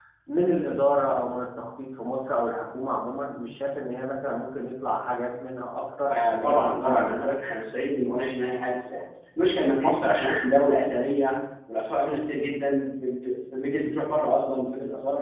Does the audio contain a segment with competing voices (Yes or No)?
Yes